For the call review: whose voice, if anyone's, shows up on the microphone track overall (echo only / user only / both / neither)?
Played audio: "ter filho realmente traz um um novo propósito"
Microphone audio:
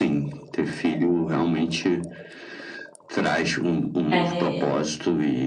both